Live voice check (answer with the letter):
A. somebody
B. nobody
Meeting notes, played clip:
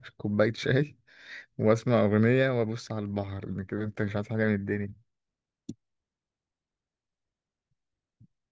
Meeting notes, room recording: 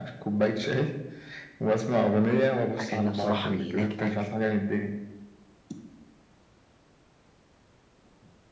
A